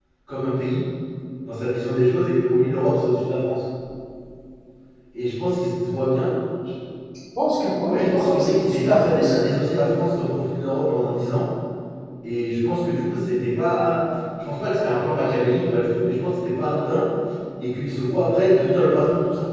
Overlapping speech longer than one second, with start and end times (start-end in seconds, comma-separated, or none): 7.8-9.3